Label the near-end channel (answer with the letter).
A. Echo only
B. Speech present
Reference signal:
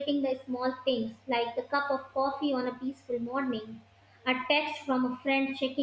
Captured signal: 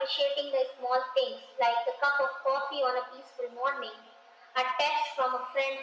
A